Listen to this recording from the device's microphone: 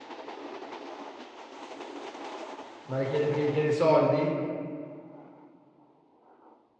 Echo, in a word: none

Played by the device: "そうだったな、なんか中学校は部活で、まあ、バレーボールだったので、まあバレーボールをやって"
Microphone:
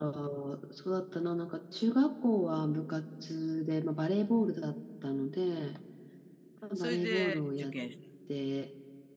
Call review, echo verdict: present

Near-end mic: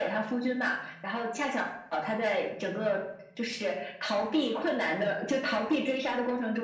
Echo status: present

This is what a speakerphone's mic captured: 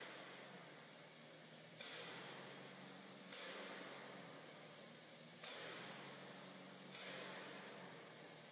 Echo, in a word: none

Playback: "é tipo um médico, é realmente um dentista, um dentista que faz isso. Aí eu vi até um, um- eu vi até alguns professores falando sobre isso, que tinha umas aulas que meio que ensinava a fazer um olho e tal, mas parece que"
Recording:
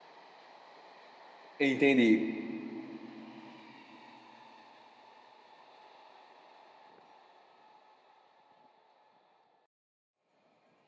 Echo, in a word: none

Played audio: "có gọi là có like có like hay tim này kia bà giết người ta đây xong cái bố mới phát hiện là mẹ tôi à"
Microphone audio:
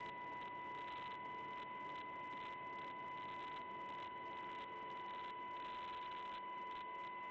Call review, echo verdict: none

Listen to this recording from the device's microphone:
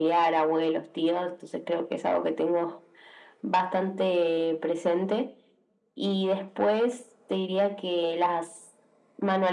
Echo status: present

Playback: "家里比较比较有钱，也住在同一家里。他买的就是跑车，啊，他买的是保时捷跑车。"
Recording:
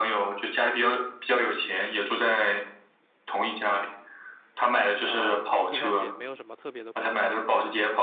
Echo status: present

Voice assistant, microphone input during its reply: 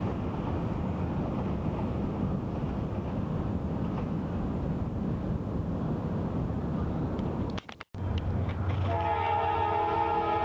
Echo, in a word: none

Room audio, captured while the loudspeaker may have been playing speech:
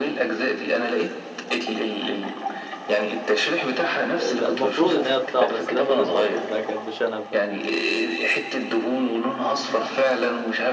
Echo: present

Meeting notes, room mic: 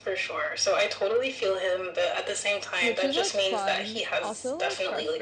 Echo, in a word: present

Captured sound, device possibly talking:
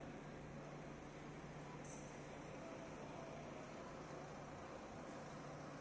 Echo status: none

